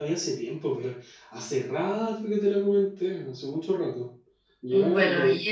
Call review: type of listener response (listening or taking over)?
taking over